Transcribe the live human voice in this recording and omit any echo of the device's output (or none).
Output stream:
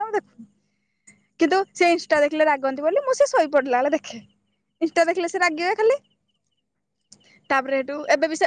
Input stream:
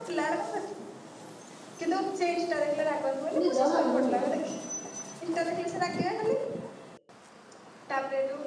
ନିଦ ଭାଙ୍ଗୁନି।